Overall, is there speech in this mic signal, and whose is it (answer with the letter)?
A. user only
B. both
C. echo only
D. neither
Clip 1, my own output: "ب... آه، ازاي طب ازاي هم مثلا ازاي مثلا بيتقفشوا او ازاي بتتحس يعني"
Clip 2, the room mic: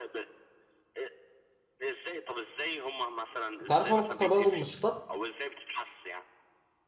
B